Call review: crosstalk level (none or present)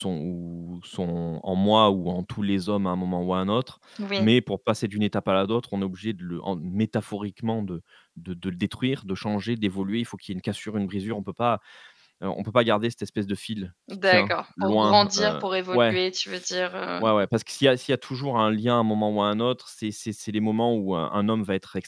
present